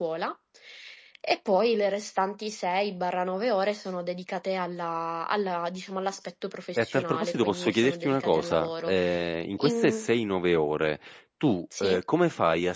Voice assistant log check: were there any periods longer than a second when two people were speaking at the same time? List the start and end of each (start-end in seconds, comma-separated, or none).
6.8-9.0